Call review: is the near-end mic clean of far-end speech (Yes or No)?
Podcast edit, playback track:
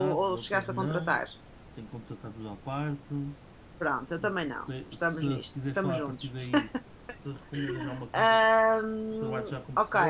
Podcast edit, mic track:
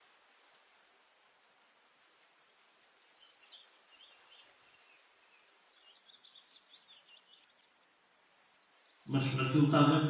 Yes